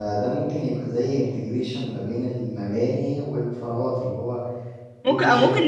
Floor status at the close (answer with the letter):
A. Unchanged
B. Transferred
B